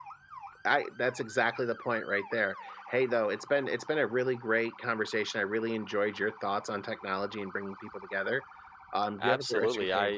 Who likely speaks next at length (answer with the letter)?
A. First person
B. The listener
B